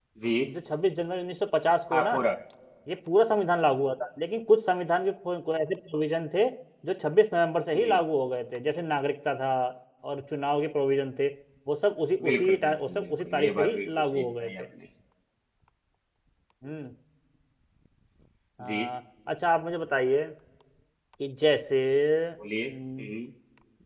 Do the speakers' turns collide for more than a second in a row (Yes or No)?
Yes